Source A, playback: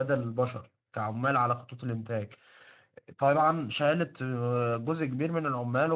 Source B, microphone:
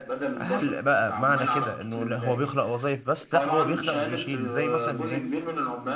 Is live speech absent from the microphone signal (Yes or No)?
No